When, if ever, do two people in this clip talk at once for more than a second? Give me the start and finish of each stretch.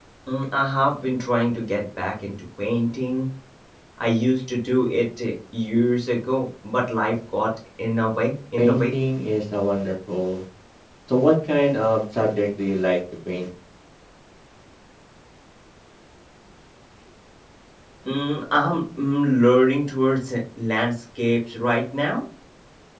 none

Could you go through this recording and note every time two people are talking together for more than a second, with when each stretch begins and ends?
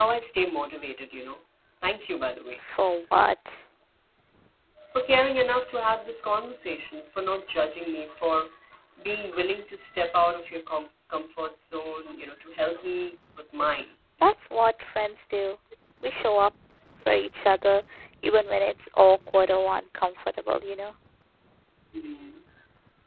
none

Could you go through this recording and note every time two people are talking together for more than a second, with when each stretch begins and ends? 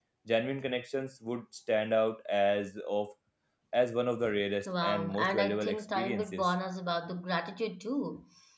4.7-6.5

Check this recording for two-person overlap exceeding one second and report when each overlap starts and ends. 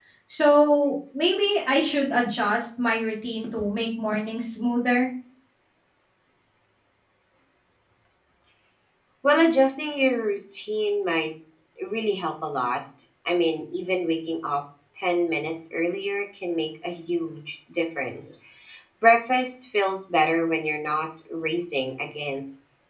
none

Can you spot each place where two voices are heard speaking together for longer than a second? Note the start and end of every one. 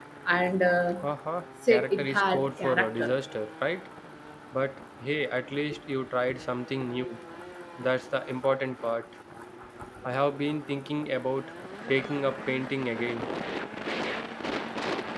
1.7-3.1

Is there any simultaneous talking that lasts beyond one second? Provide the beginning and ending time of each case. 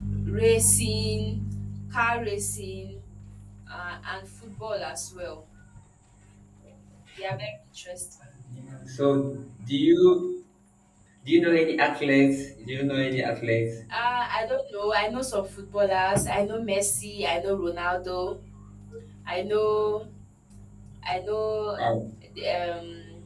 none

